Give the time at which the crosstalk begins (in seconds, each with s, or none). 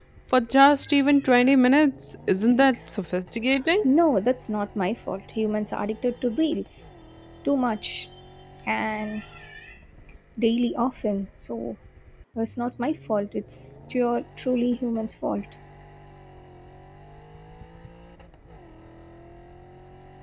none